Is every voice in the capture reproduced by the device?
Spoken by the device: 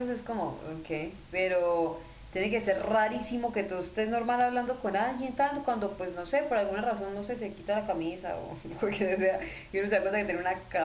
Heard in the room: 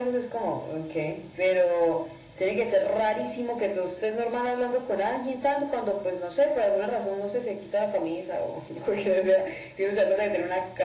Yes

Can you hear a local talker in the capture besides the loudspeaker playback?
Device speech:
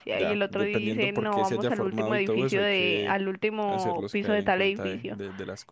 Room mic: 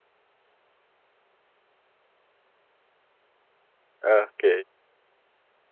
Yes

